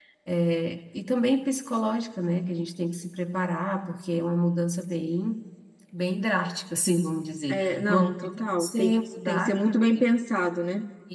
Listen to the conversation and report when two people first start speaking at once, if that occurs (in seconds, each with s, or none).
7.5 s